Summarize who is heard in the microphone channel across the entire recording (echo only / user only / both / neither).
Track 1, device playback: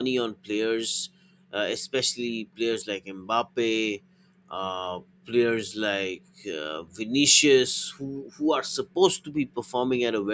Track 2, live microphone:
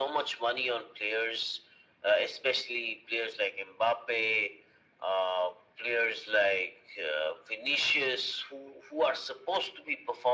echo only